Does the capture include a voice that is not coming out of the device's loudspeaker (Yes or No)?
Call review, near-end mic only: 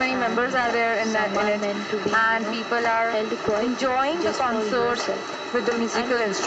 No